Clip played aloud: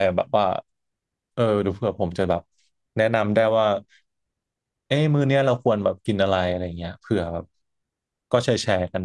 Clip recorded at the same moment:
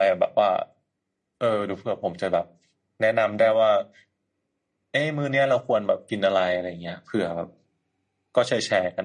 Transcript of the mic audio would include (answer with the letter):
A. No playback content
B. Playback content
B